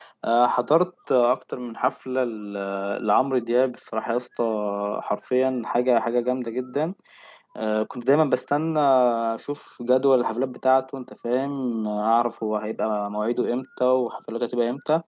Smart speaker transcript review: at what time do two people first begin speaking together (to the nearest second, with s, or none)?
none